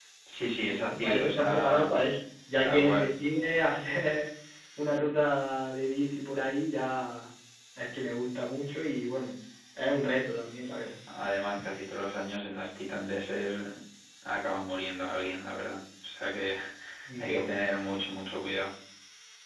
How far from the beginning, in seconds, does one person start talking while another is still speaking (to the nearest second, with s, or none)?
1 s